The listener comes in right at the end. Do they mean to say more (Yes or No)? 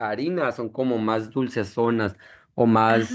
No